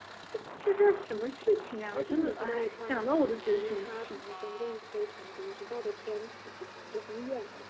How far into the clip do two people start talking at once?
1.9 s

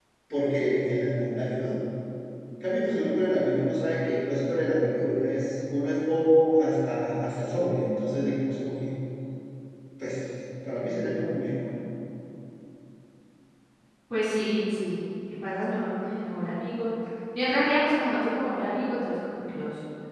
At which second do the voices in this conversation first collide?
none

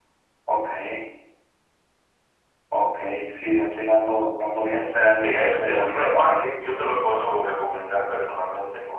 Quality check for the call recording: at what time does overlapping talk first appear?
5.2 s

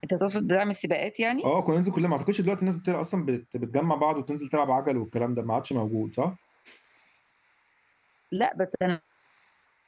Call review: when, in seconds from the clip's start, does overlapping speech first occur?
none

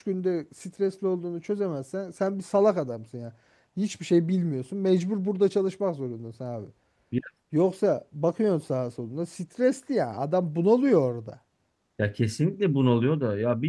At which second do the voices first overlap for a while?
none

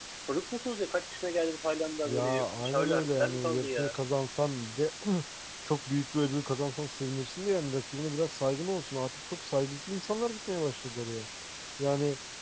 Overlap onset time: 2.0 s

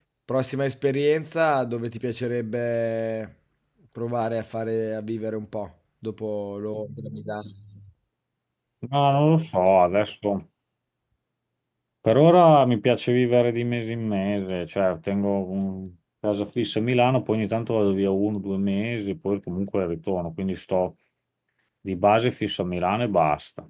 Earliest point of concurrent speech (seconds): none

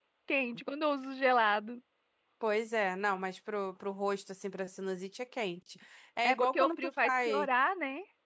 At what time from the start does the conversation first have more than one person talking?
6.2 s

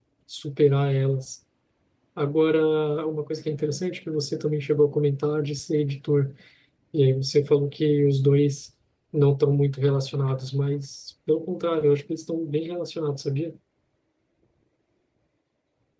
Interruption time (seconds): none

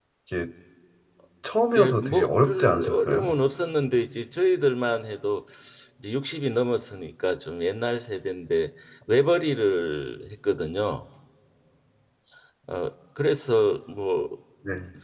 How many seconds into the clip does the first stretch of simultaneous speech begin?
1.8 s

